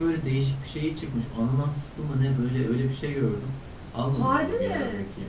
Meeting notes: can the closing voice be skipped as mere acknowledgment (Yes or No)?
Yes